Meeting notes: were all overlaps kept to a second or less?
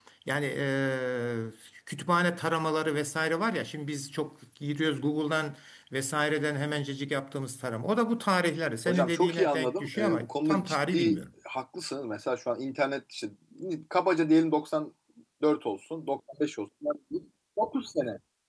No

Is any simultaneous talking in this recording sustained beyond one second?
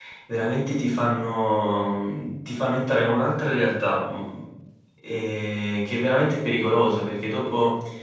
No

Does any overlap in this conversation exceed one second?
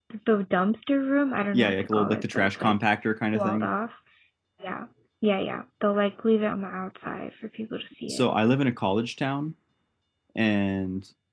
Yes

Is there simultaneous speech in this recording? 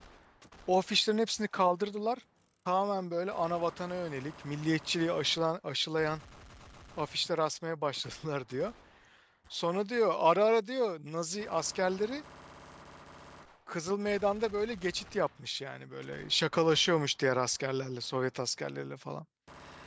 No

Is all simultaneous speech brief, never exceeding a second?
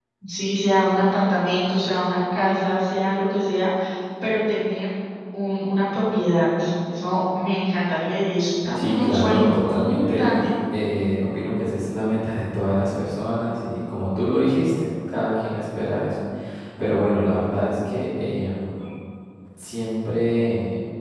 No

